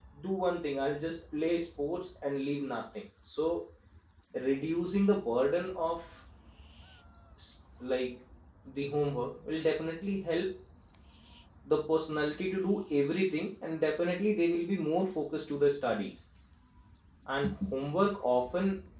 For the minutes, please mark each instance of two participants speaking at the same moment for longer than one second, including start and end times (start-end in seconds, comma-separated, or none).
none